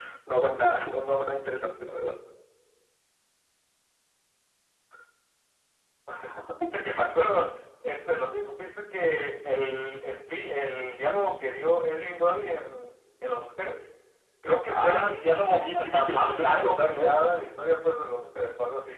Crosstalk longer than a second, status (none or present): present